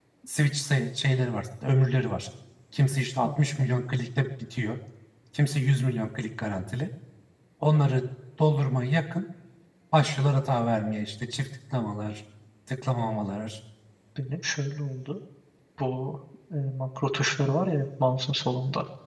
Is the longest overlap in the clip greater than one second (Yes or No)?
No